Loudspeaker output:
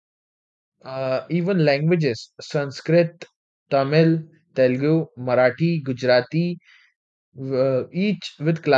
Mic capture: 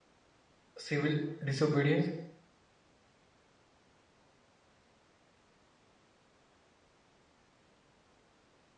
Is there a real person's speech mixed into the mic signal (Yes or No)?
Yes